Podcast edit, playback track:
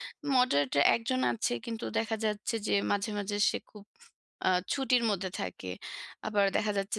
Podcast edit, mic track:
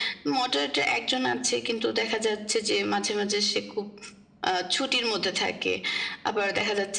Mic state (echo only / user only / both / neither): echo only